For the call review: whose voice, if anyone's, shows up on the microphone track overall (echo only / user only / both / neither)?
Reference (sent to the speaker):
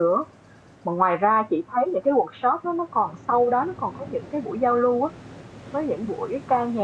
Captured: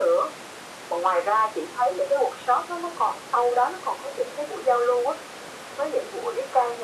echo only